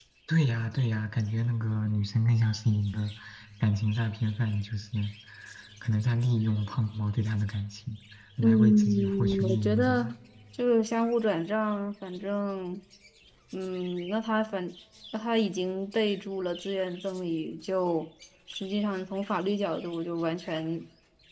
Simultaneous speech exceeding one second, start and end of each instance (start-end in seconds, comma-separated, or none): 8.4-10.1